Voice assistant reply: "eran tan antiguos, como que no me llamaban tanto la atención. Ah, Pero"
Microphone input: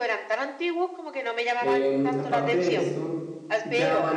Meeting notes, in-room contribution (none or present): present